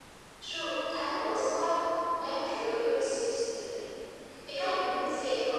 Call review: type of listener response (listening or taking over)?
listening